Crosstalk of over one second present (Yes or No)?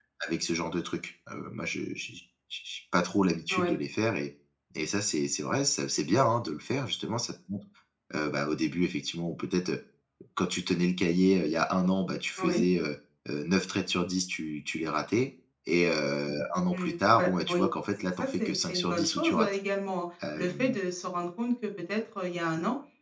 Yes